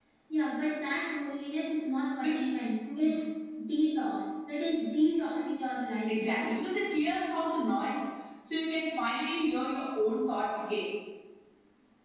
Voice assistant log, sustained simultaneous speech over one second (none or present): none